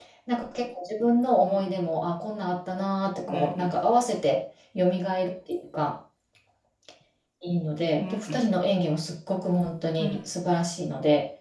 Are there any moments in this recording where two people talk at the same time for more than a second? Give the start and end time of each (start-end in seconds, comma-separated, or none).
none